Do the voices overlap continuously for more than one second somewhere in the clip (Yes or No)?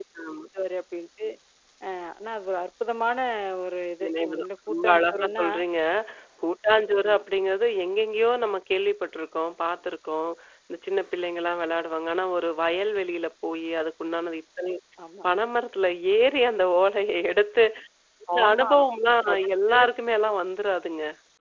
Yes